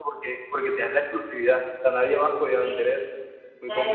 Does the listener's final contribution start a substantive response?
Yes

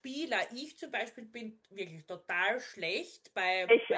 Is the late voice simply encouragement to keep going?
Yes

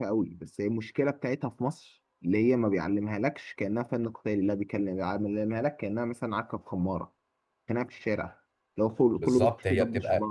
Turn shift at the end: Yes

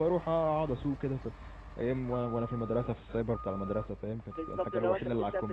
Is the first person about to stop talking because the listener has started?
Yes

